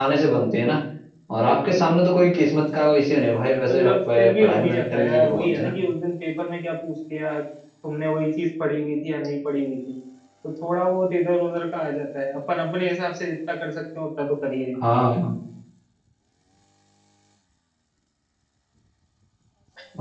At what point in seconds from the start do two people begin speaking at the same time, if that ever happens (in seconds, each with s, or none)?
3.7 s